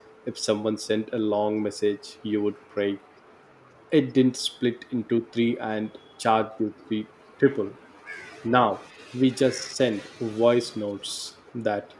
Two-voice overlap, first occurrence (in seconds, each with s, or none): none